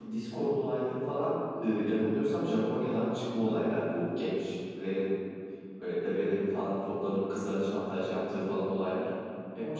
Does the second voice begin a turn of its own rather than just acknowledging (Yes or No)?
No